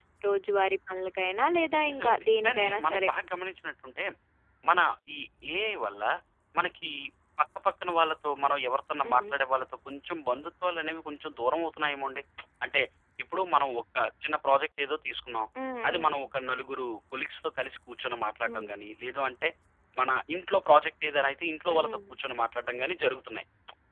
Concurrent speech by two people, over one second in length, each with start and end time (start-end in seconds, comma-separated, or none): 1.9-3.1